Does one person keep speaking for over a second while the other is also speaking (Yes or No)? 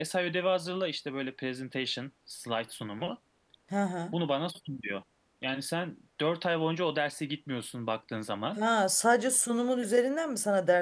No